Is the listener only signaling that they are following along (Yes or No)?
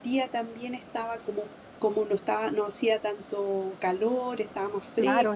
No